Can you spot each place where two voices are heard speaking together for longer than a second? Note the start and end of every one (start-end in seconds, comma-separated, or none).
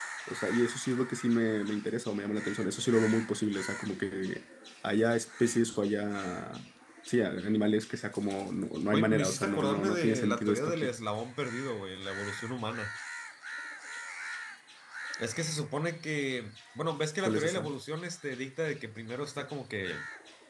8.9-10.9